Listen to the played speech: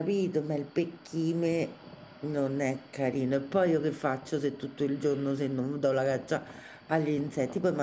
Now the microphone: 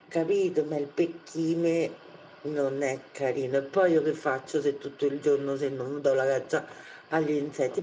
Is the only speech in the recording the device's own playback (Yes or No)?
Yes